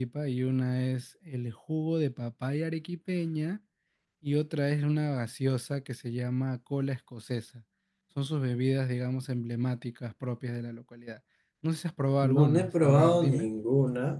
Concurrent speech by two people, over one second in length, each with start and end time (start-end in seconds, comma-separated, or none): 12.2-13.5